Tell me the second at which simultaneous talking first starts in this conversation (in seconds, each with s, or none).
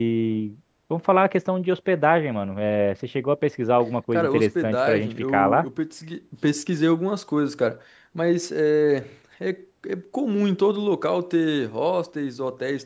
4.1 s